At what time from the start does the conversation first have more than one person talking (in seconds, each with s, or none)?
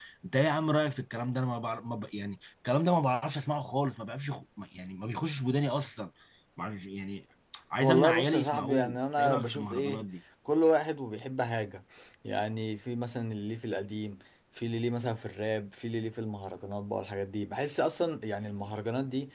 7.8 s